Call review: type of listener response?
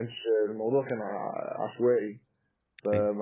listening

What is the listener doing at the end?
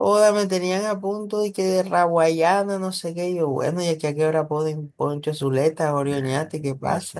taking over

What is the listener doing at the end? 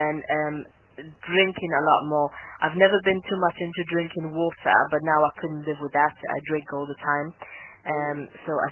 listening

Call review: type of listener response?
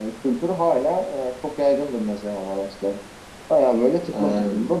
listening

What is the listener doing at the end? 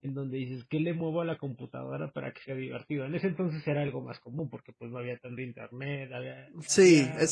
taking over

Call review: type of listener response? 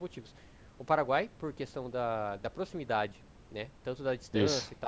listening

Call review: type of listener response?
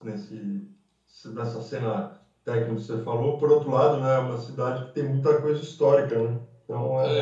taking over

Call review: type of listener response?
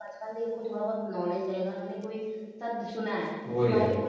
listening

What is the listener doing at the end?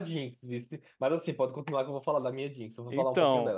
taking over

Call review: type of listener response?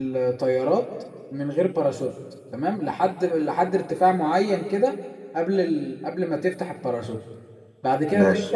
listening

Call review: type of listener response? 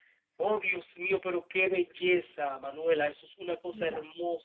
listening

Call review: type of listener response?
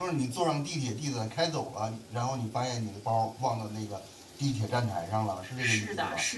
taking over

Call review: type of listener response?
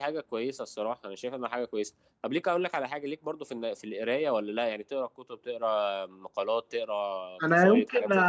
taking over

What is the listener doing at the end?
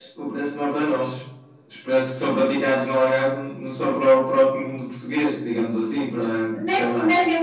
taking over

